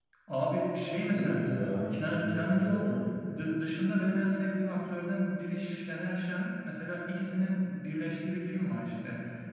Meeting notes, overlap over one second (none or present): present